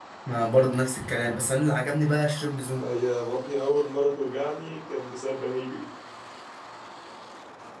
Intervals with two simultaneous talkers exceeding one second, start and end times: none

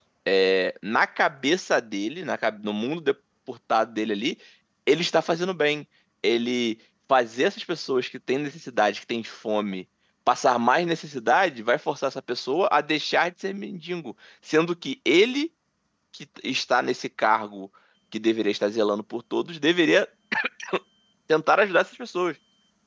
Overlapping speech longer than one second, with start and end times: none

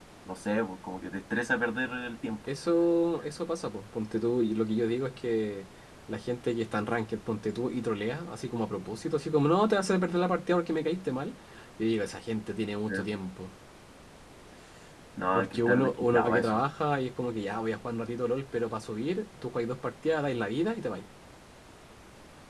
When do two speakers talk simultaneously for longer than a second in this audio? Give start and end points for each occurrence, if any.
15.3-16.6

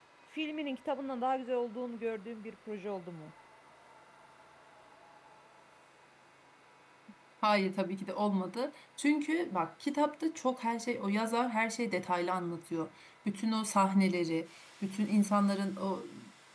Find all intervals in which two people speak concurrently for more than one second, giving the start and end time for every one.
none

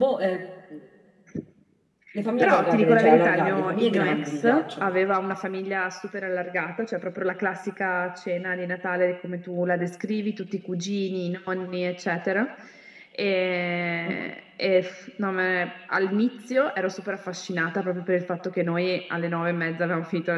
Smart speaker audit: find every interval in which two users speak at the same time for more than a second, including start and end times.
2.4-4.9

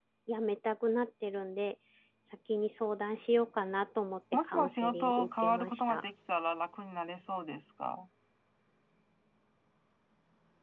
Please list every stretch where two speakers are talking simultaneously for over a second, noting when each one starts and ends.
4.3-6.0

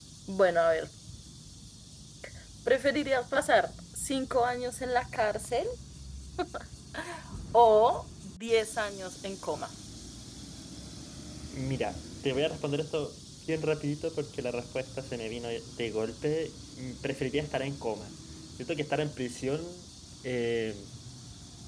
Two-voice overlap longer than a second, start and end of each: none

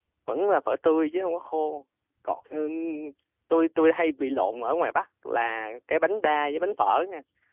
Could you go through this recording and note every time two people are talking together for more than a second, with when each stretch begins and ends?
none

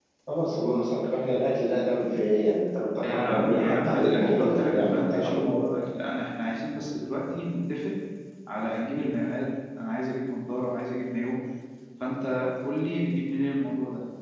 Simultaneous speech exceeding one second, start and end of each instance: 3.0-5.6

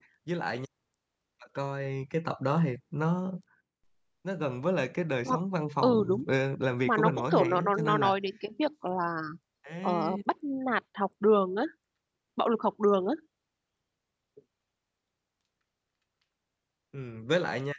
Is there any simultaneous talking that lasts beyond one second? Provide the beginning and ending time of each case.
6.9-8.1

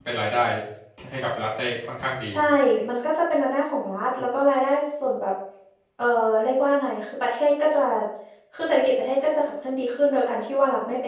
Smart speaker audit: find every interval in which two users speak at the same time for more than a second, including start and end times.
none

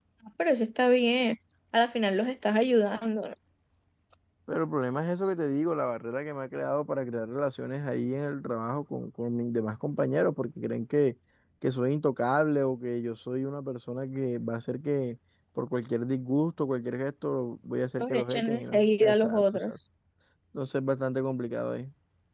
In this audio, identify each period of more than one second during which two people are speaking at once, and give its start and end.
18.0-19.7

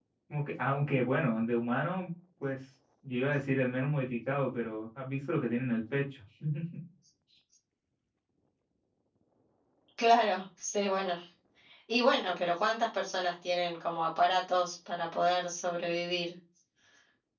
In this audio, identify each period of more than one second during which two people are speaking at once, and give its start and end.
none

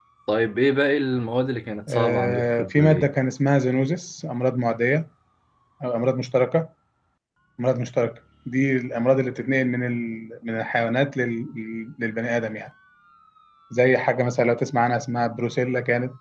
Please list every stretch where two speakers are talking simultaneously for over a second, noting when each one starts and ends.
1.9-3.1

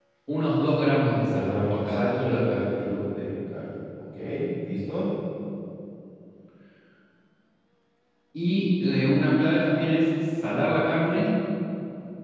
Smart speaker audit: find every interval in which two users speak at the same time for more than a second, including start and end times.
1.2-2.7

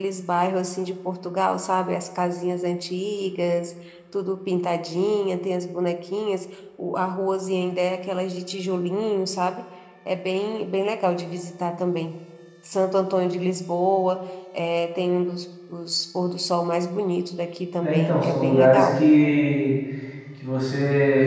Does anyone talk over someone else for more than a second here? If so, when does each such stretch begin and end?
17.8-19.0

